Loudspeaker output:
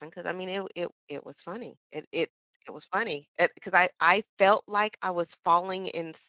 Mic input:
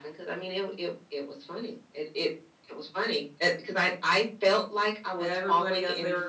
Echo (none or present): present